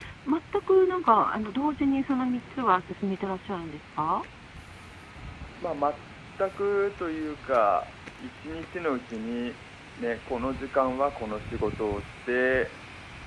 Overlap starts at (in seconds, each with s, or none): none